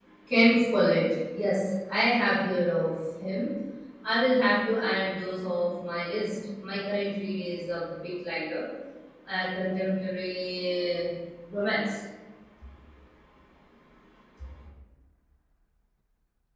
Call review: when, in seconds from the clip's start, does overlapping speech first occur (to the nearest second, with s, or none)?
none